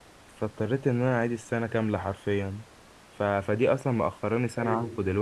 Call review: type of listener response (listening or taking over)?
listening